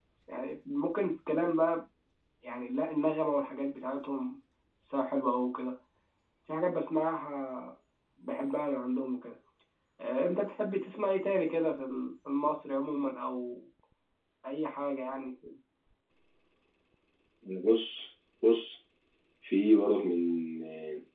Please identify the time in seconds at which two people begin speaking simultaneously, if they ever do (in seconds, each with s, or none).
none